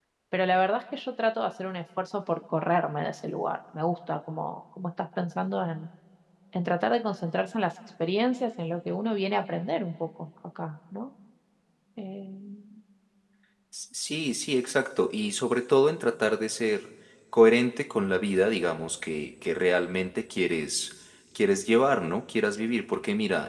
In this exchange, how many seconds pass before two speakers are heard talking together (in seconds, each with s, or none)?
none